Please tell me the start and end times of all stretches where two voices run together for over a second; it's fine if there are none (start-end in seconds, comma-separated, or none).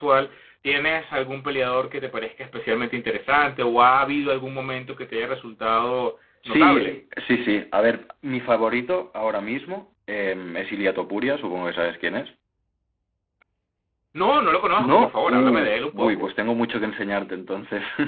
14.8-16.3